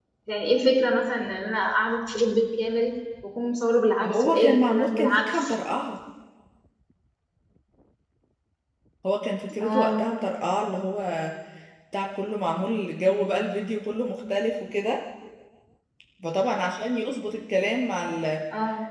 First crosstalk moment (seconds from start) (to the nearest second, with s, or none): 4 s